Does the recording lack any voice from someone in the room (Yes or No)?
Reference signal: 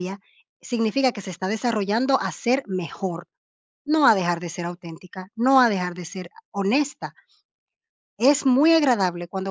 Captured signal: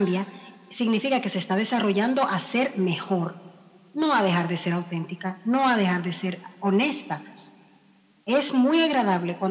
Yes